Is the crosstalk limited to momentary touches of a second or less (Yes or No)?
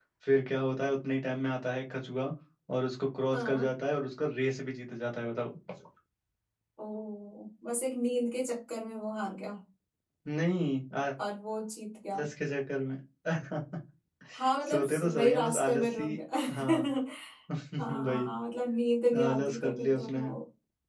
No